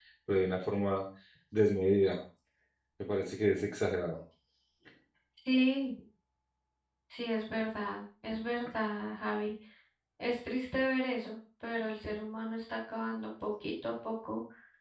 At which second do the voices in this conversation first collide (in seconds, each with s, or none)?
none